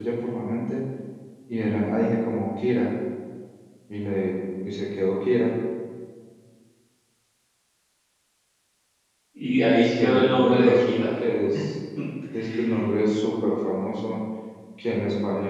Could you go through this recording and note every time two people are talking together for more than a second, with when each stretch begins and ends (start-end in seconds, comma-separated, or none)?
9.8-11.1